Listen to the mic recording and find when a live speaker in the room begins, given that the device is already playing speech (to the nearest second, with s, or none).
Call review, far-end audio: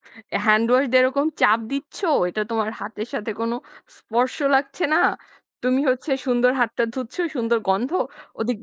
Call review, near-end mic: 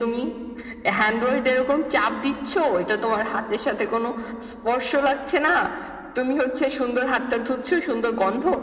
none